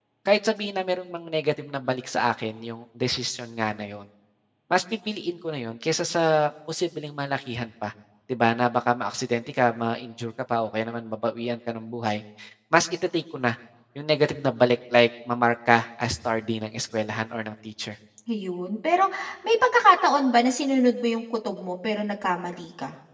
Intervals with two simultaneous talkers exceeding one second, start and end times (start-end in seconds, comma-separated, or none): none